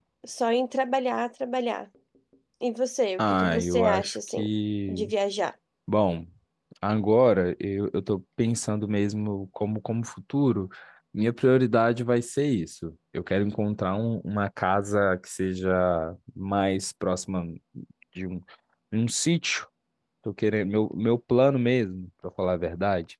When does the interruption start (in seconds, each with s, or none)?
3.2 s